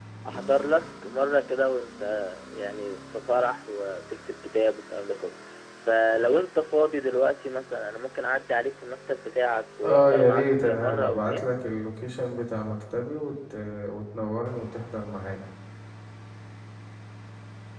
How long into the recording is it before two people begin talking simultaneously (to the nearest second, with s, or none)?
10 s